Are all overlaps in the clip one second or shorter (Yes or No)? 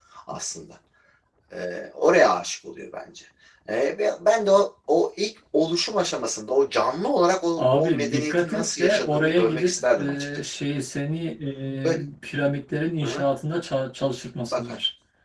No